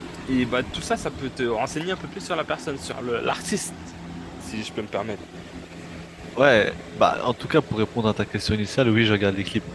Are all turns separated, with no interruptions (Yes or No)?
Yes